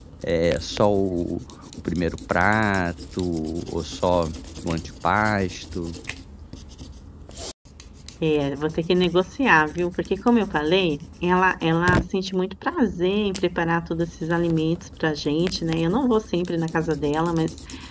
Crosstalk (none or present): none